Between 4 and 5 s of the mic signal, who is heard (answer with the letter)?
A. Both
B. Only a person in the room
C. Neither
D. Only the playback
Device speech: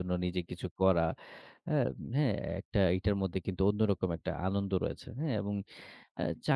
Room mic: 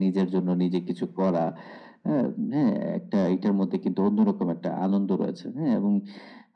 D